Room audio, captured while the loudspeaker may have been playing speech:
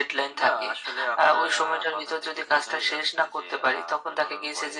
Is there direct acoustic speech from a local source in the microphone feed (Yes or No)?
No